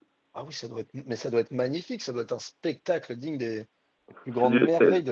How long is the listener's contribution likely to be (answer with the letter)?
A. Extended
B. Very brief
A